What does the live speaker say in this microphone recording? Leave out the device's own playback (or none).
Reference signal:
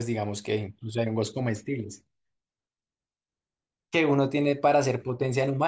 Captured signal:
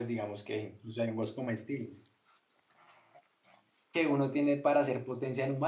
none